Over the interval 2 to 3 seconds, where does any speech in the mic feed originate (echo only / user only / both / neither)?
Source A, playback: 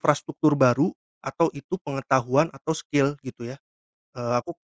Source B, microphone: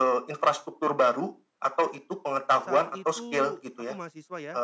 both